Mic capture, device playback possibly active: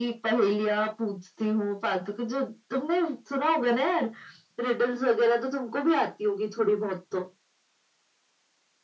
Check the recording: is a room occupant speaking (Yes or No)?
No